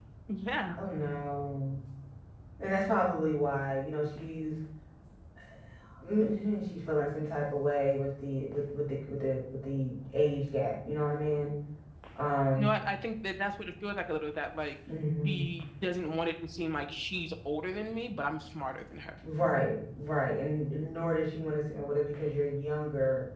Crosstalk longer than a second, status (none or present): none